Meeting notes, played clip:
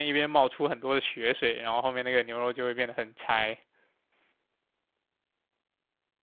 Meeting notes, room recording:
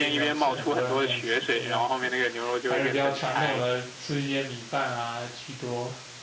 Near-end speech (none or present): present